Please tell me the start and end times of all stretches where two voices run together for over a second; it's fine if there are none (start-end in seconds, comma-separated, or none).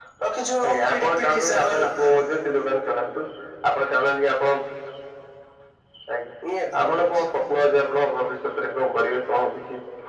0.7-1.9